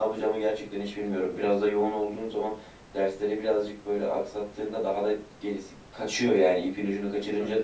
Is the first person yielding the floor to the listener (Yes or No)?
Yes